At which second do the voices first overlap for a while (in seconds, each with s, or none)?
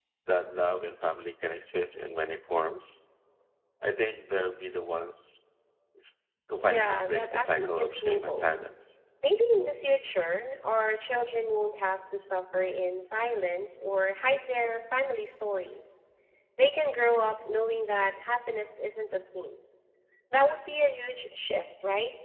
6.7 s